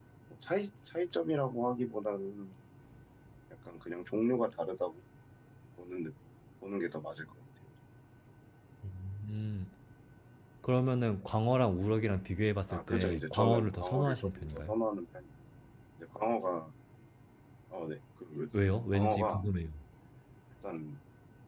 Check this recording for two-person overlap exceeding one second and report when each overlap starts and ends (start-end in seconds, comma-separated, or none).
12.7-14.7